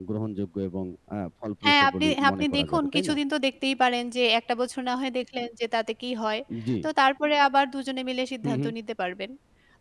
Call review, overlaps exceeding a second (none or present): present